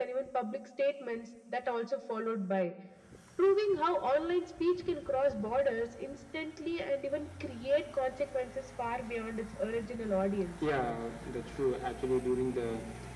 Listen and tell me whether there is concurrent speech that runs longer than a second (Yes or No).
No